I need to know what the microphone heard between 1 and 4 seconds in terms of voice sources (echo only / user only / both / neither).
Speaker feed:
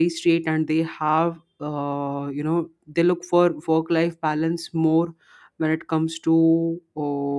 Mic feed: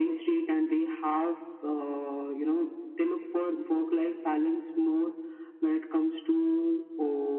echo only